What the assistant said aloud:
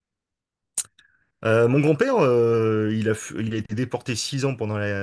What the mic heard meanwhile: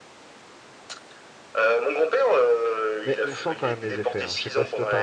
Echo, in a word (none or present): present